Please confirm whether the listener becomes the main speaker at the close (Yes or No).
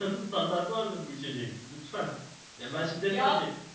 No